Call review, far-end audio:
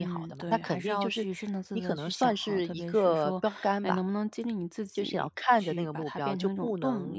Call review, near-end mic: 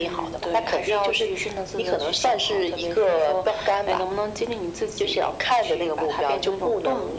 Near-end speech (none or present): none